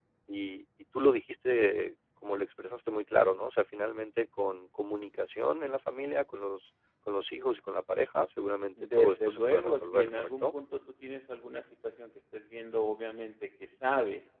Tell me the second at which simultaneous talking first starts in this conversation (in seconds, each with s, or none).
8.8 s